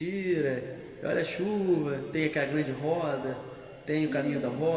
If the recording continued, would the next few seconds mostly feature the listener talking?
Yes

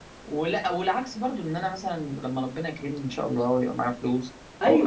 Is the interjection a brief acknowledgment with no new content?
Yes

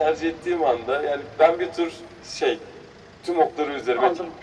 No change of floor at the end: No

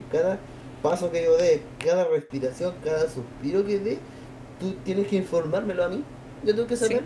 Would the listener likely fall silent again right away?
Yes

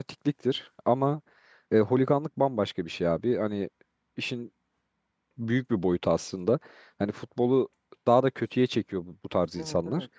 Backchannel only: Yes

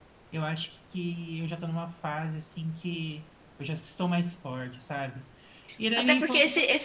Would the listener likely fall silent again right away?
No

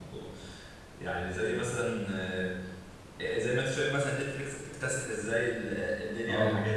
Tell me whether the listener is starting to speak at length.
No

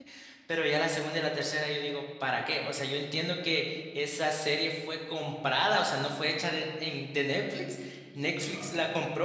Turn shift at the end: No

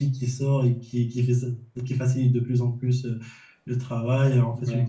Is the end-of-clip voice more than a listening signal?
No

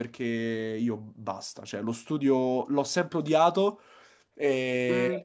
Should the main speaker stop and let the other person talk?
No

